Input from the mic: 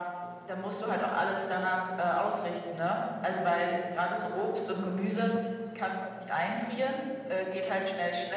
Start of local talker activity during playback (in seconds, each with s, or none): none